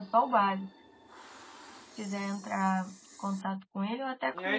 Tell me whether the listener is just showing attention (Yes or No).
No